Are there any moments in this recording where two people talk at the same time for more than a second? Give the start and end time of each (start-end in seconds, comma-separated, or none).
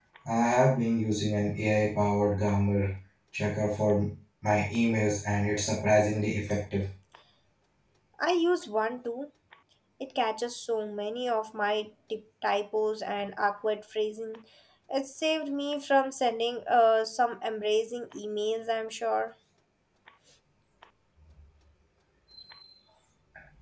none